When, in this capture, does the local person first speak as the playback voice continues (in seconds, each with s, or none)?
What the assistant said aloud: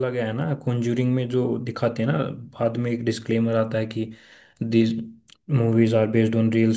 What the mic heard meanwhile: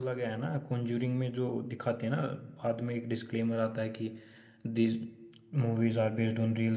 none